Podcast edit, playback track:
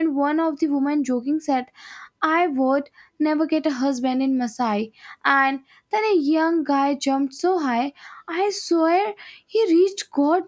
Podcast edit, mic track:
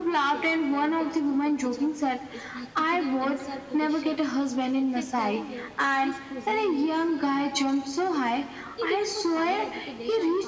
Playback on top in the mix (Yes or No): Yes